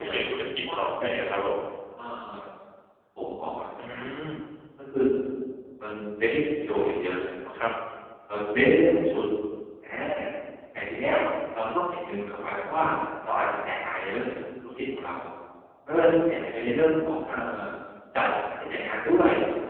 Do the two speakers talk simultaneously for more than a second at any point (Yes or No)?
Yes